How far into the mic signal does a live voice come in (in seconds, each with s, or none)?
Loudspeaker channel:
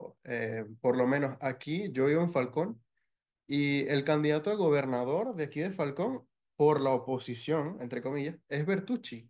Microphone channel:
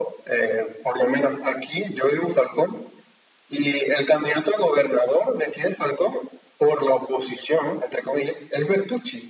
none